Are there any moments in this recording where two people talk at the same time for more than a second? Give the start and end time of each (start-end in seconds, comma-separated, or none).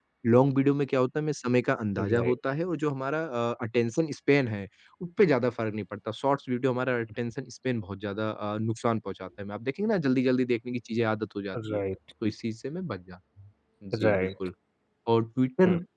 none